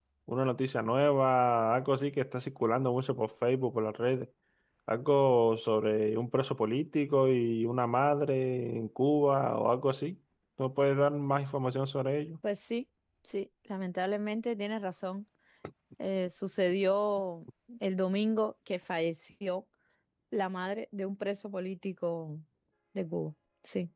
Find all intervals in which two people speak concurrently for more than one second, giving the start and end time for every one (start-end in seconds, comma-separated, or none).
none